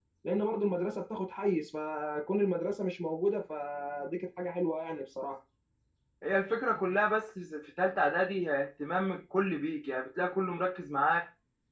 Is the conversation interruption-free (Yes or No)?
Yes